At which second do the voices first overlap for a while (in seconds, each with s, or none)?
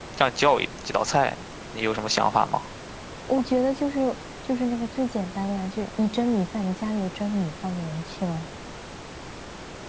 none